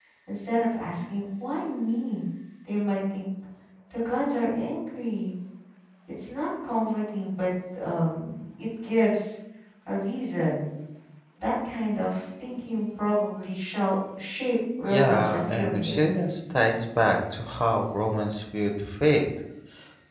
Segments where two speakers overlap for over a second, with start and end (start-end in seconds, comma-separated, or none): 14.9-16.1